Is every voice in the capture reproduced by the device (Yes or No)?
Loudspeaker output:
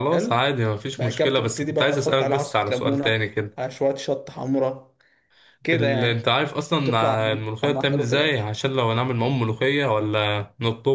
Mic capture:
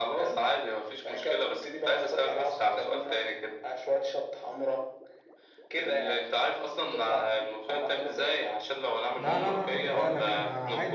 No